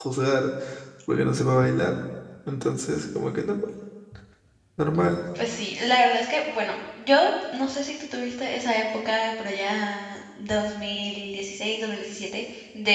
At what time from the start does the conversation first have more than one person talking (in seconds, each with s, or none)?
none